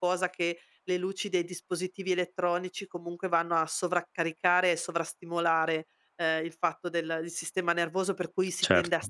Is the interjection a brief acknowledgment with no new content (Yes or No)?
Yes